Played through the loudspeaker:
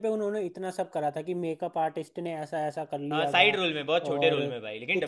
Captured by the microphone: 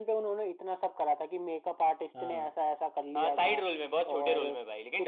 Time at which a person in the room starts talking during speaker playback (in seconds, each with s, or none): 2.1 s